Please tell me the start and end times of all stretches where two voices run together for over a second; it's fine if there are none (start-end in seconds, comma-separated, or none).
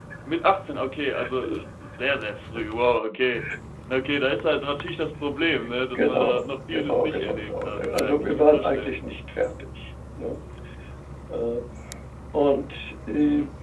6.0-8.9